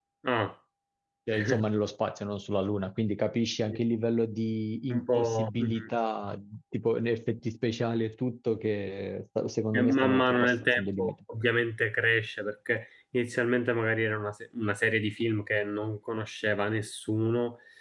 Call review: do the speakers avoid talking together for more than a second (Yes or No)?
No